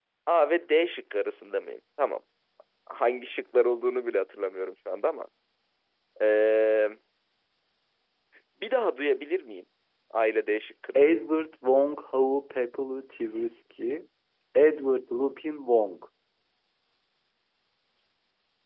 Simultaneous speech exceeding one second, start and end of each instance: none

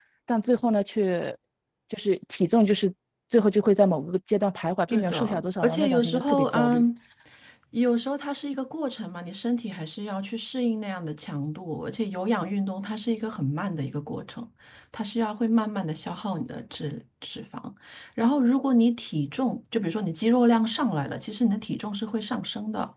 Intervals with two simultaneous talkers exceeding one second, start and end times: 4.9-6.8

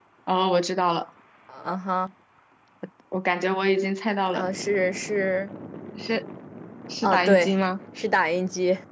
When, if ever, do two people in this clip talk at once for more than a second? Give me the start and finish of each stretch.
none

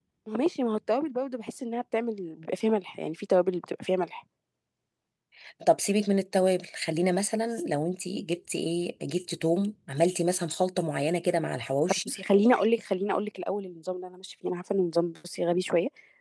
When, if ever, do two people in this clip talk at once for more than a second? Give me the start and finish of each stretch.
none

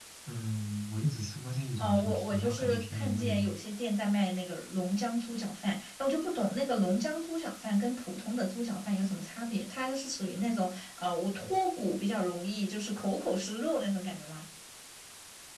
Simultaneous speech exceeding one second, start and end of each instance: 1.8-3.4

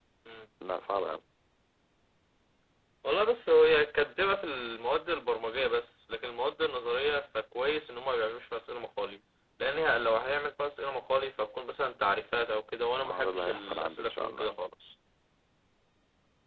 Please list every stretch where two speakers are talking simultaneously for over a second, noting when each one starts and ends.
13.0-14.5

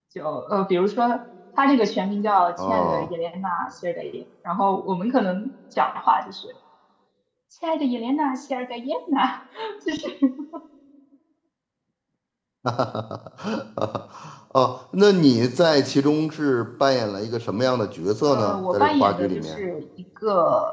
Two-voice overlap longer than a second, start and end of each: 18.3-19.6

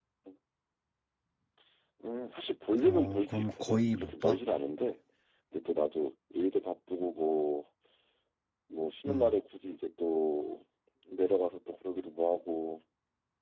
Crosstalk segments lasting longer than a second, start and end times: 2.8-4.4

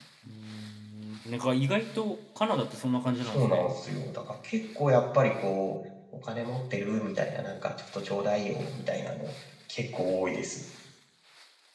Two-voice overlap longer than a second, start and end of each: none

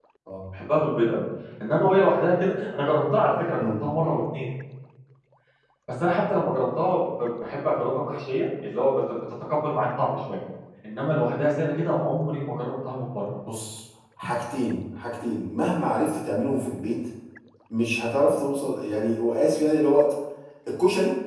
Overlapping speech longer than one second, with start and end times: none

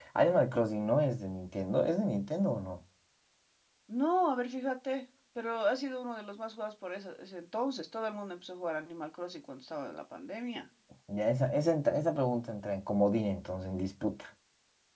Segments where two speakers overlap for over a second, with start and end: none

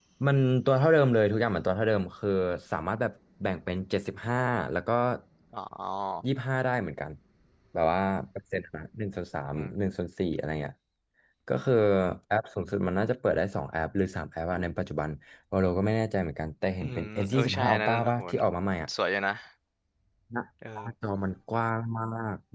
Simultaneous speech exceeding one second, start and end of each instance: 16.8-18.2

